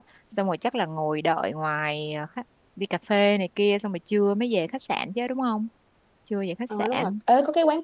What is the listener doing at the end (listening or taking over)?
taking over